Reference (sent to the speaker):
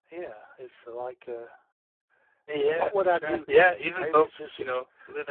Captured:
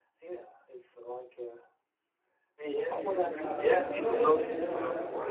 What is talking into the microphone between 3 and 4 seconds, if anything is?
both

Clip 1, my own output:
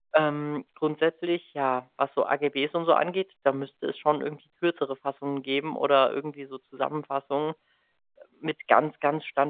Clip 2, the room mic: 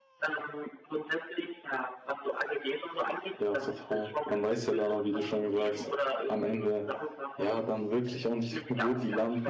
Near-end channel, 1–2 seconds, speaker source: echo only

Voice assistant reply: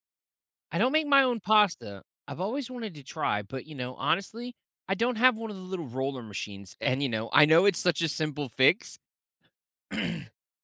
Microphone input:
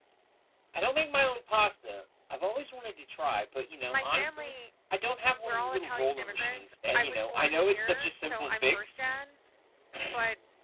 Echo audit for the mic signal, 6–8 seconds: both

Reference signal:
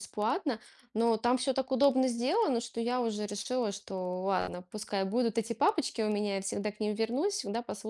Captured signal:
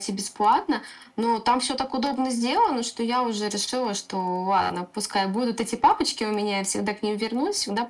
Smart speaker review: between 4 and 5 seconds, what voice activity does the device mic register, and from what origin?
echo only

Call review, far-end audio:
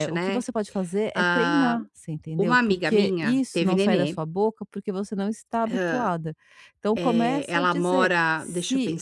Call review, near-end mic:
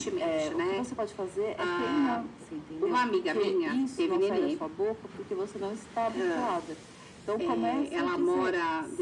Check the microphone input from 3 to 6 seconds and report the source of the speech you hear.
echo only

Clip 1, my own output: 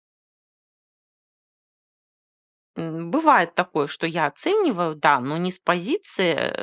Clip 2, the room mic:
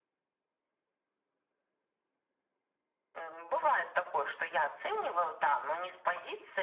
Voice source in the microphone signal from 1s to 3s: neither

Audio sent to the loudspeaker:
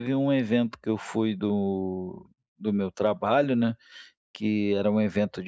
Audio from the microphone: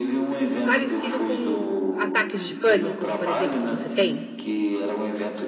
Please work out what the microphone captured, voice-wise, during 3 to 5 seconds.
both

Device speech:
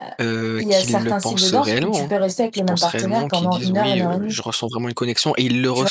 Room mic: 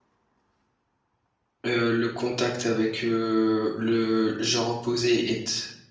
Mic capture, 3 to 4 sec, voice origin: user only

